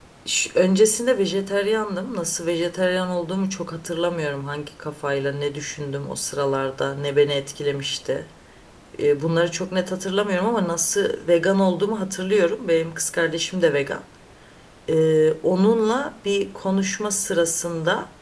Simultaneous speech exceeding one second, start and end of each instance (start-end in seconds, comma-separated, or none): none